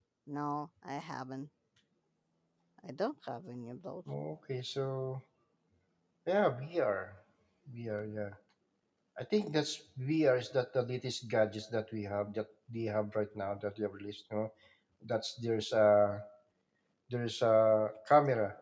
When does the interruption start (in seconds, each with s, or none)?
none